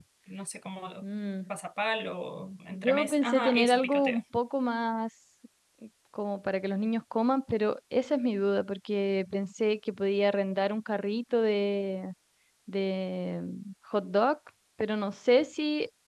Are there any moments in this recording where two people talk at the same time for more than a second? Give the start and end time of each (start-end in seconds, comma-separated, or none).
2.7-4.2